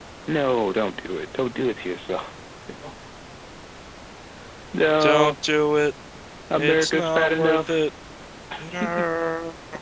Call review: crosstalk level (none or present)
present